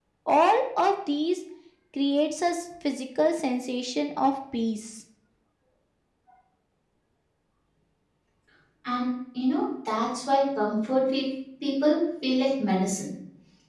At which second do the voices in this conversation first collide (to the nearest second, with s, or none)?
none